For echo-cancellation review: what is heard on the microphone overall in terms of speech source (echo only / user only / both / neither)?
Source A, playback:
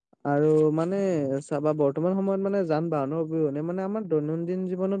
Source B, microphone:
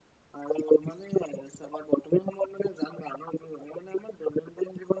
echo only